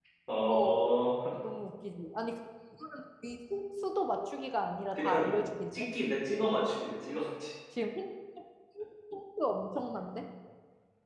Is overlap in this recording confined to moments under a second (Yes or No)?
Yes